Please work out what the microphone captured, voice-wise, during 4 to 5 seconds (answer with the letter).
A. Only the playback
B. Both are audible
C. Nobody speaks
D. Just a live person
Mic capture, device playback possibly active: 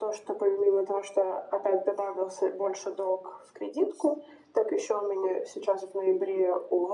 A